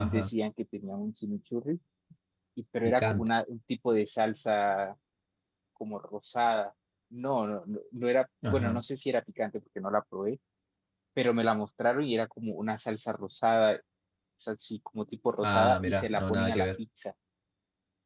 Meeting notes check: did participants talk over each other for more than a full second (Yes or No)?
Yes